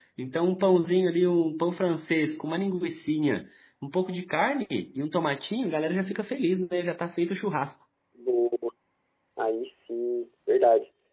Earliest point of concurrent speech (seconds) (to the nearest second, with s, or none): none